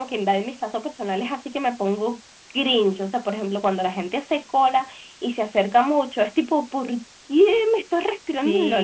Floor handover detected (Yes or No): Yes